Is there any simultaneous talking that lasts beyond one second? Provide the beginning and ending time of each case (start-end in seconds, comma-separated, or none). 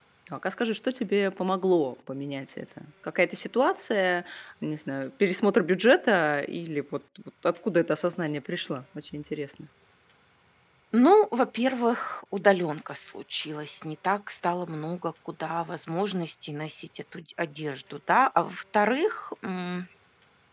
none